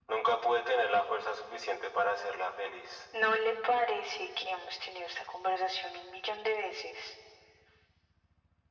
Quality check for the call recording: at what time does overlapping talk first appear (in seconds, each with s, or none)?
none